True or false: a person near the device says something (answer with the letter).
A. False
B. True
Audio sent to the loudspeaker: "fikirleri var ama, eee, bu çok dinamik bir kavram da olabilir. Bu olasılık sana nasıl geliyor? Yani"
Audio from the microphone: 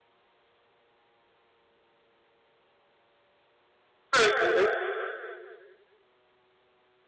B